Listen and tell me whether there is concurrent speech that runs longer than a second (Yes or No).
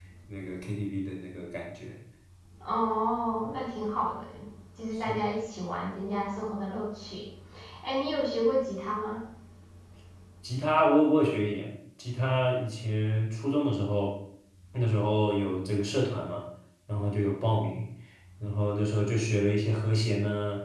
No